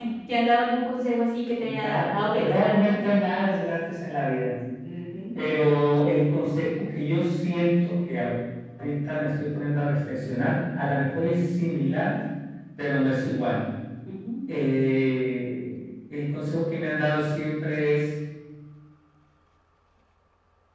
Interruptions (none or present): present